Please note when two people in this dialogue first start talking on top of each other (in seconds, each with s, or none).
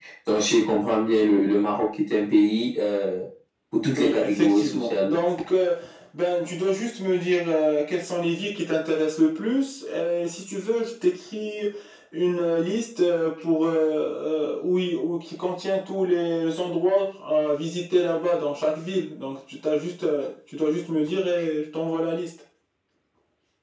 3.9 s